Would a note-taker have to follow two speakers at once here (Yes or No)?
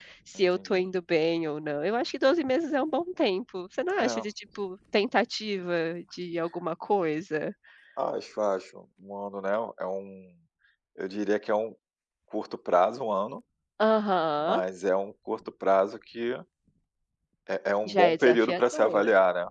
Yes